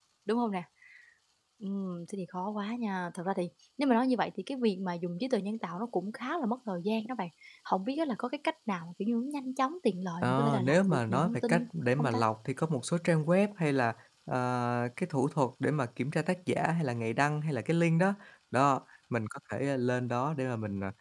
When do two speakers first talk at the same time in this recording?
10 s

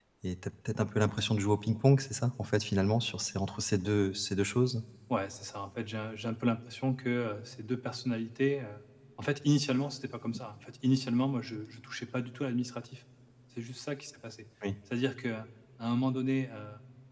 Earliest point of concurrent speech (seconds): none

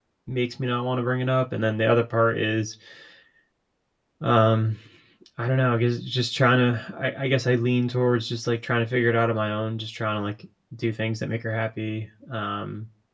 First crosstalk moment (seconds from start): none

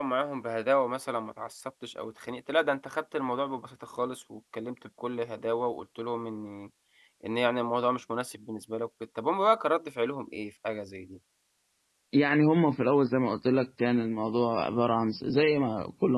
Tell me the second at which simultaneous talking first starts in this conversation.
none

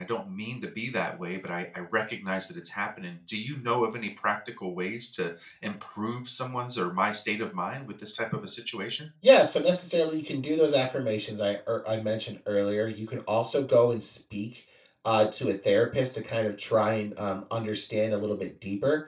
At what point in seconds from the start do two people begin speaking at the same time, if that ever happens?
none

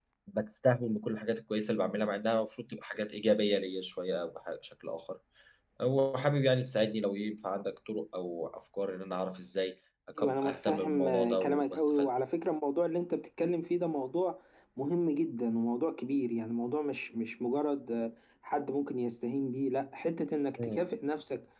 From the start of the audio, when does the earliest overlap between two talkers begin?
10 s

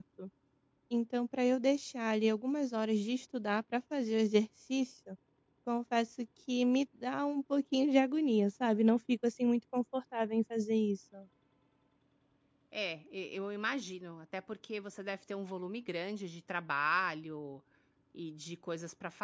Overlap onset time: none

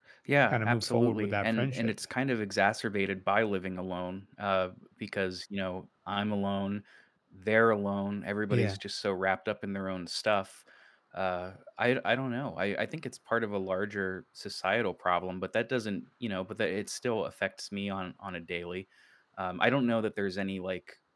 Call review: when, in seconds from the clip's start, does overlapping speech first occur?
1 s

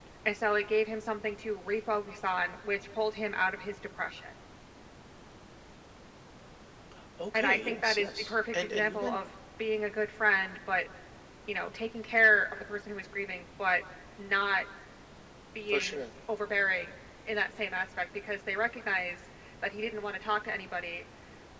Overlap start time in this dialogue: 7 s

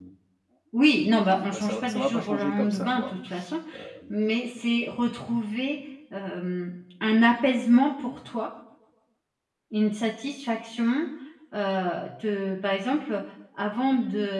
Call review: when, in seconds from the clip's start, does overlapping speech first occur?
1 s

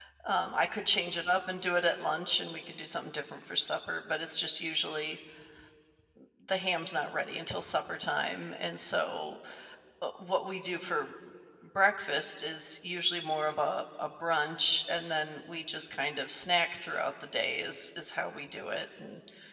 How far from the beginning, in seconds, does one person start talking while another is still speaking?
none

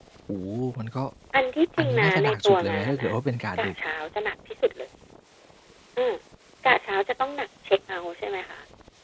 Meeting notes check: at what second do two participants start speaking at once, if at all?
2 s

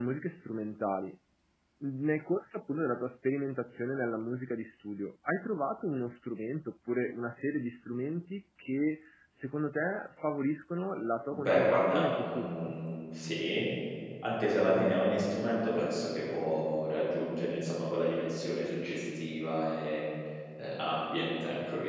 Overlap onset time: 11 s

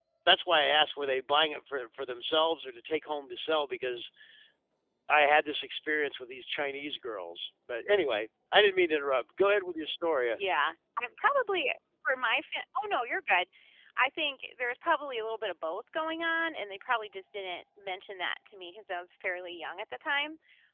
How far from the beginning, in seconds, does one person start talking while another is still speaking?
none

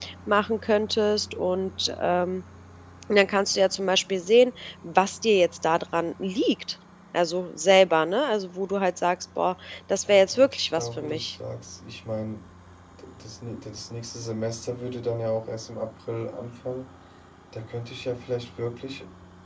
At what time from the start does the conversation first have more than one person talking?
10 s

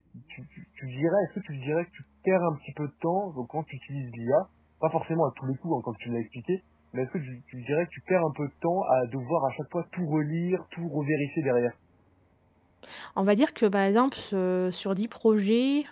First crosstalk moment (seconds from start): none

